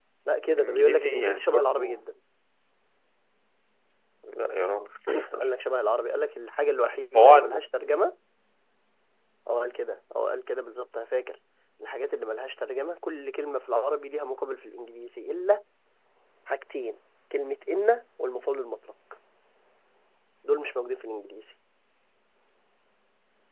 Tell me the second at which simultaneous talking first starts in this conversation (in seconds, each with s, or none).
0.5 s